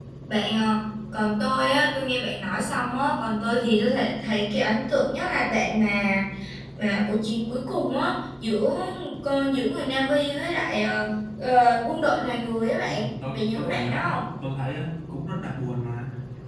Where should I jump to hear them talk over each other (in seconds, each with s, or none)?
12.8 s